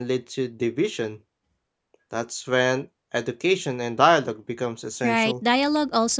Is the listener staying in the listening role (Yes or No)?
No